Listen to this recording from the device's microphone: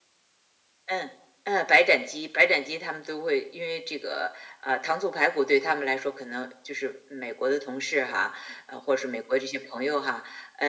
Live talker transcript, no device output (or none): none